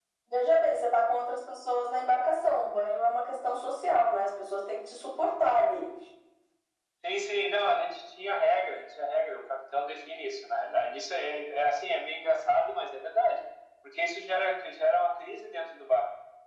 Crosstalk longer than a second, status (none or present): none